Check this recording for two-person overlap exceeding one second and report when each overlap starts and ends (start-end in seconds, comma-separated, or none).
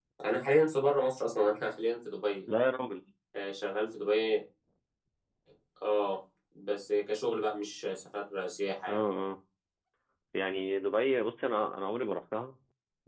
none